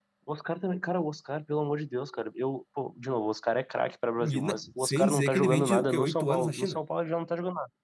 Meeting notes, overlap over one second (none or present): present